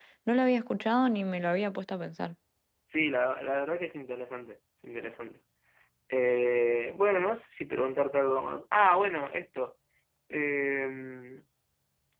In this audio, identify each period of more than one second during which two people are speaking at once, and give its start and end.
none

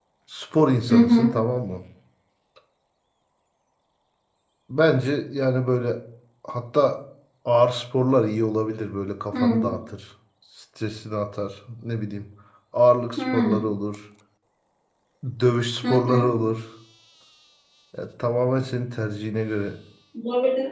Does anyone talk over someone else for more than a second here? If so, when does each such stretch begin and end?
none

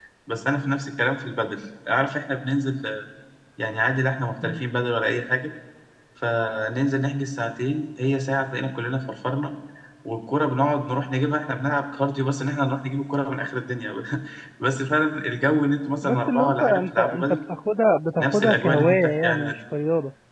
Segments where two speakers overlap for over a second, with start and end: 16.0-17.4, 18.2-19.6

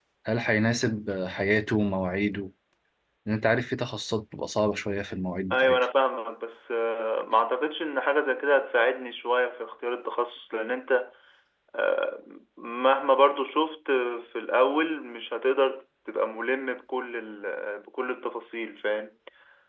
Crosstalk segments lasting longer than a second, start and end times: none

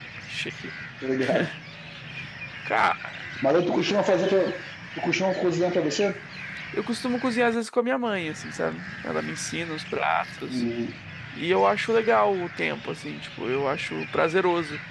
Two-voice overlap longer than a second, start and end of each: none

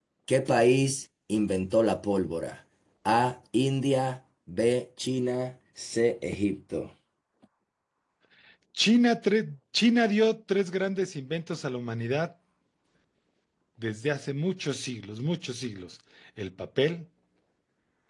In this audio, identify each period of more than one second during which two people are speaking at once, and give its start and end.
none

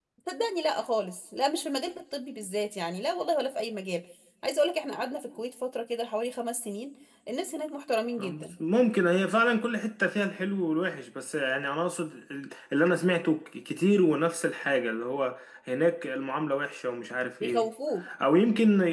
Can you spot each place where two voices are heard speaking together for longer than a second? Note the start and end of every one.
none

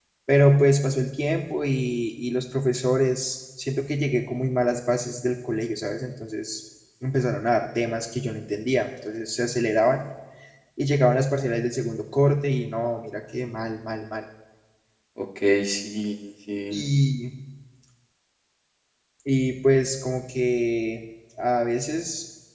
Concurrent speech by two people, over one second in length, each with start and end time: none

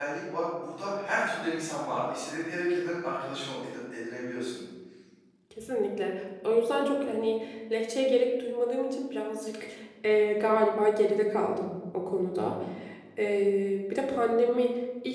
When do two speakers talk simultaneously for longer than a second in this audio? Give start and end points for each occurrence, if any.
none

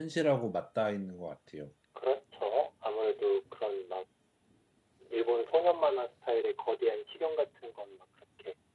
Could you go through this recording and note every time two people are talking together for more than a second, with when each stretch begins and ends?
none

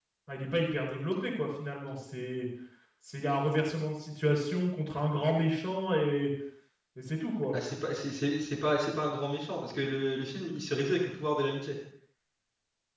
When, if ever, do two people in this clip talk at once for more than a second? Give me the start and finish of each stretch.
none

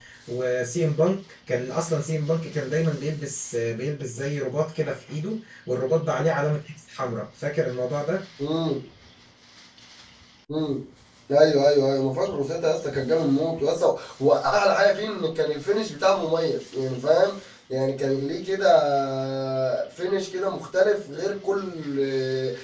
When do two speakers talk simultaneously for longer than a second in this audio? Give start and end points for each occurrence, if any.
none

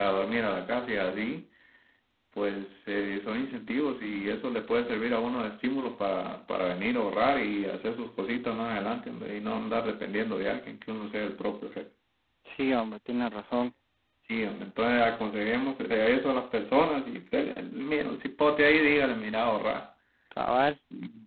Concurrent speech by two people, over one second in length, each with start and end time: none

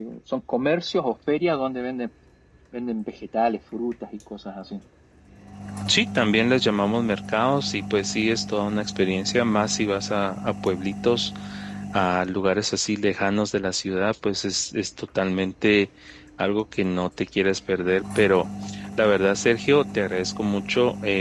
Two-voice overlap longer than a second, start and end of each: none

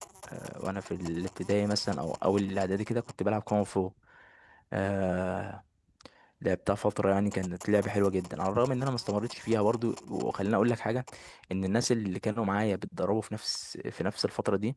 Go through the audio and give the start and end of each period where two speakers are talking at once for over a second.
none

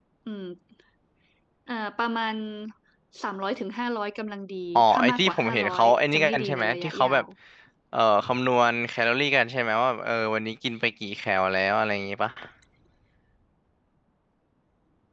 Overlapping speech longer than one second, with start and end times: 4.8-7.2

